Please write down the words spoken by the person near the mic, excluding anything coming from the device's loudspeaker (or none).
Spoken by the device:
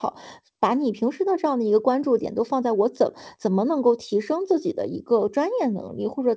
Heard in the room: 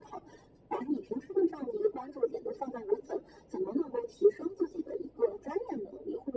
none